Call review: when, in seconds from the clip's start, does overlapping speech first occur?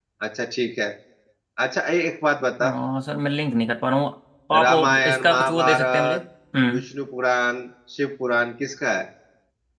4.6 s

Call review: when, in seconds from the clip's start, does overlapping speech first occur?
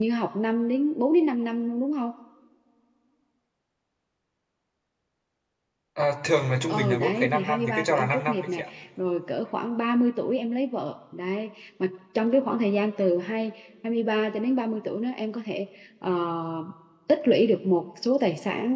6.7 s

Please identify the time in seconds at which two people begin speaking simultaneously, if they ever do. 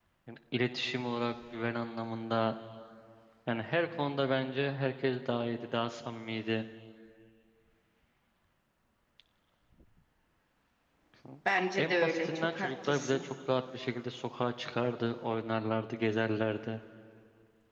11.8 s

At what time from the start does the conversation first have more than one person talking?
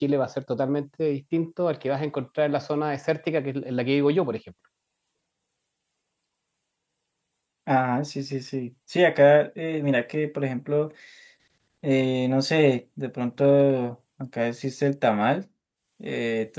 none

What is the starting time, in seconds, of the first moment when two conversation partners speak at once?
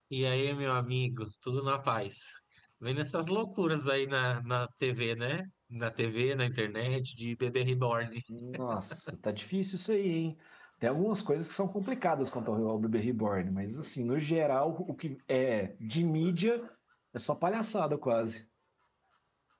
none

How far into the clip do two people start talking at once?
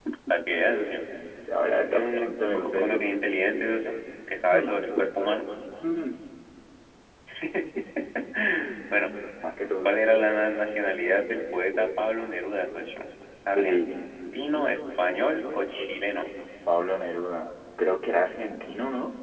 1.9 s

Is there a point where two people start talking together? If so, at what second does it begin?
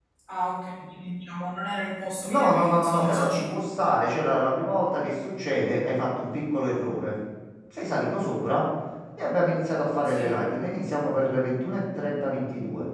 2.3 s

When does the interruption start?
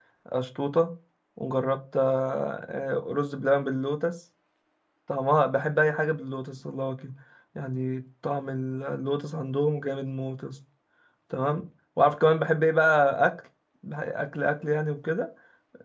none

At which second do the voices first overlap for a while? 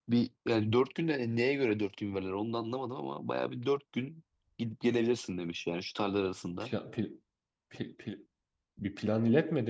none

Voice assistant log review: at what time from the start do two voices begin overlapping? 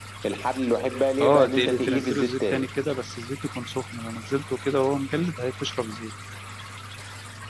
1.2 s

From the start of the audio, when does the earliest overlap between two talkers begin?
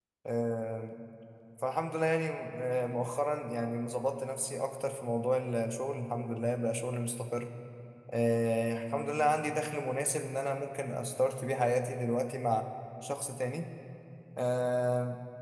none

